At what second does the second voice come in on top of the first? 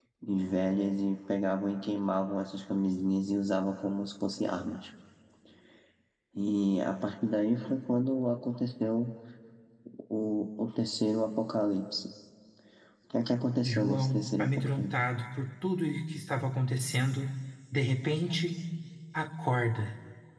13.6 s

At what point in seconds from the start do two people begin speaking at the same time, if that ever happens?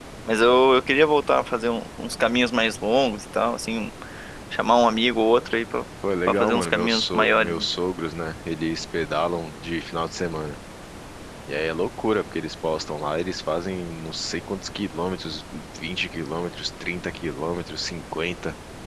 6.3 s

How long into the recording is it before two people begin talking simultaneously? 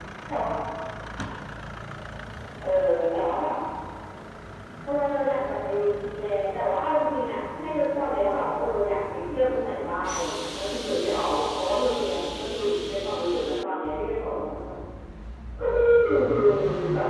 none

